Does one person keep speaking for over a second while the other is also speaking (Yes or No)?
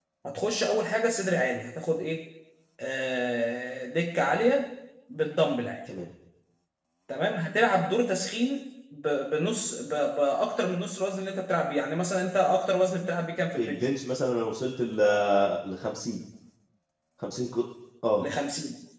No